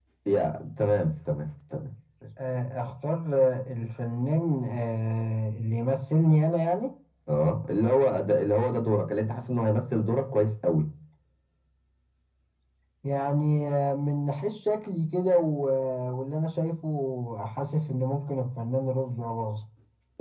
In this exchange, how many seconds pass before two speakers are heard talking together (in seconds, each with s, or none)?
none